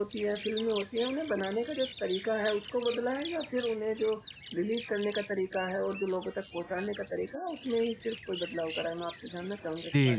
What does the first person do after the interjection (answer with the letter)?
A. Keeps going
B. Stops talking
B